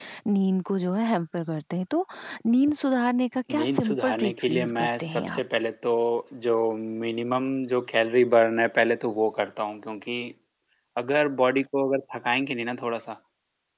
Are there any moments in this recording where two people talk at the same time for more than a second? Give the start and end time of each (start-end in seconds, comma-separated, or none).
3.6-5.4